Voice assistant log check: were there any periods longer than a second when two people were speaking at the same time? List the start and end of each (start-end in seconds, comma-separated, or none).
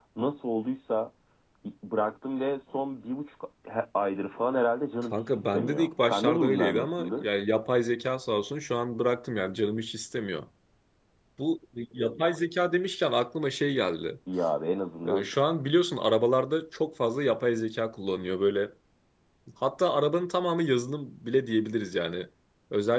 5.0-7.3